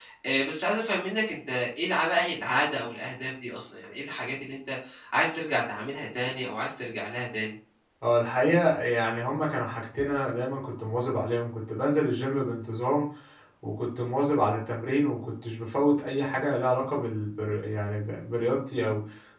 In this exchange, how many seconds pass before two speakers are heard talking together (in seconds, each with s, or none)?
none